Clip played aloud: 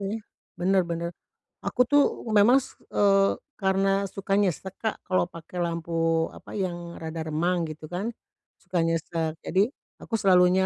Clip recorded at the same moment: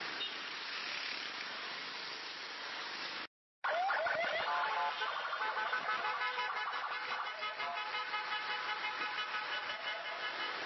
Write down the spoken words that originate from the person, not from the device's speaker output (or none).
none